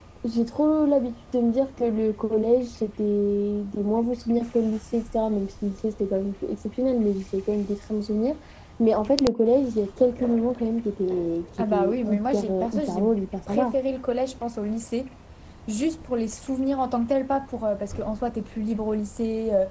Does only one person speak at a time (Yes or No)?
No